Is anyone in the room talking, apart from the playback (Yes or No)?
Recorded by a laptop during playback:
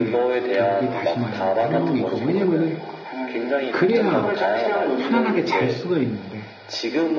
Yes